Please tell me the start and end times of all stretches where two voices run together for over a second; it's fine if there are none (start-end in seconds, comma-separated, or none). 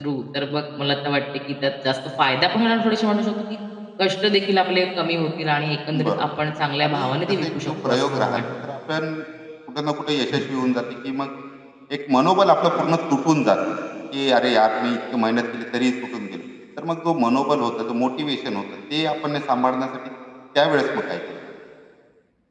6.8-8.4